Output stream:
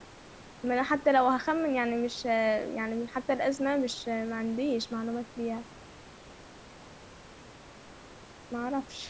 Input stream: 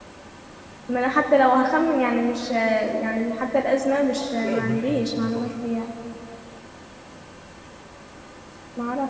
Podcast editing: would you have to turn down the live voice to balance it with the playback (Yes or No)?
No